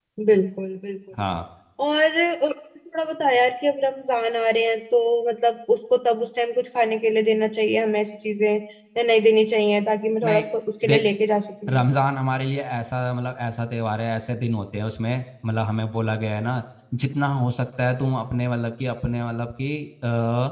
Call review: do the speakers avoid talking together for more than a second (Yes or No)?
Yes